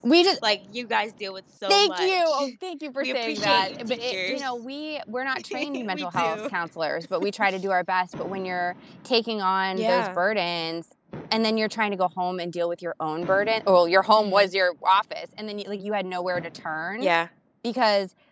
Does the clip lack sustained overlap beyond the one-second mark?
No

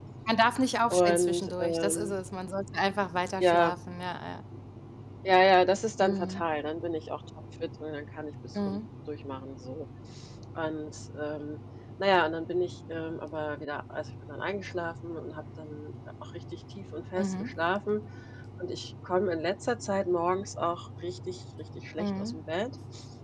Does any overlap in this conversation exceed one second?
Yes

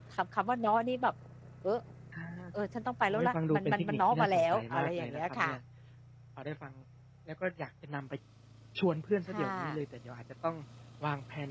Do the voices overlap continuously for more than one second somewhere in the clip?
Yes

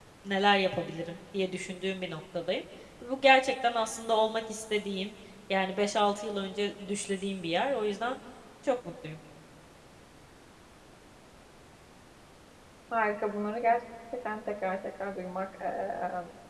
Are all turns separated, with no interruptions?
Yes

